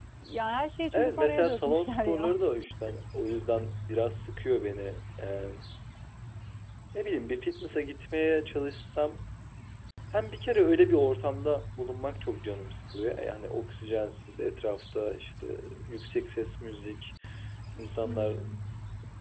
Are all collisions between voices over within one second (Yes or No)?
No